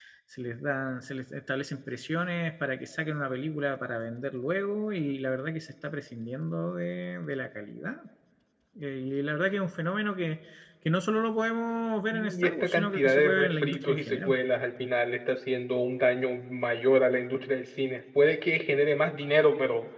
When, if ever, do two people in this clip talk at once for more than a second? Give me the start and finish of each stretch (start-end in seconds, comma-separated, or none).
12.1-14.3